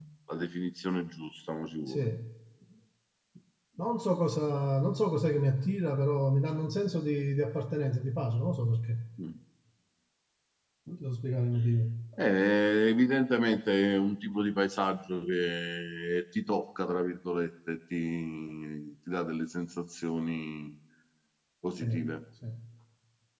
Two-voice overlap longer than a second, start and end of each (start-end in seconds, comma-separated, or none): none